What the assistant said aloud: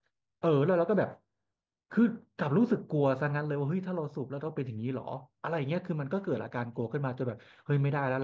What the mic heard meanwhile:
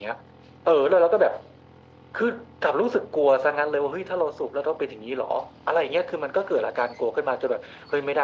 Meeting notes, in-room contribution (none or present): none